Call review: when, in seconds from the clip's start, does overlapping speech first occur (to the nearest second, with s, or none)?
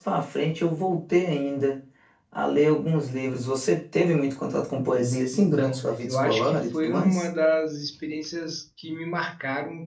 5 s